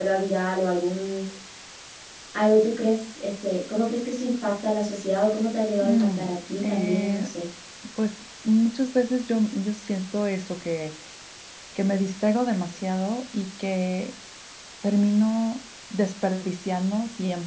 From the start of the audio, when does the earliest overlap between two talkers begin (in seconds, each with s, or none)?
5.8 s